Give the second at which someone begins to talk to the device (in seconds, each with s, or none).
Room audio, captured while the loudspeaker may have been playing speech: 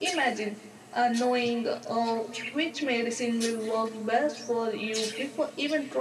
none